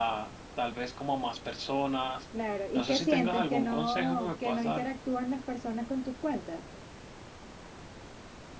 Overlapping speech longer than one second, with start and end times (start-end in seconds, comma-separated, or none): 2.7-4.8